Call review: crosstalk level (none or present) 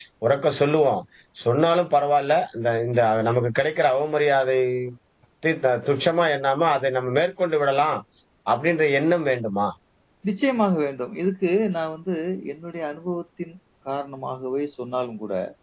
none